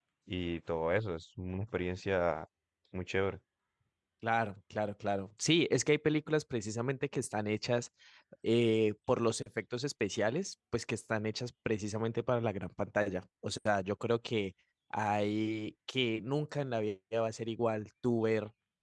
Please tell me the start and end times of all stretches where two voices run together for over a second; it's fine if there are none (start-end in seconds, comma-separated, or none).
none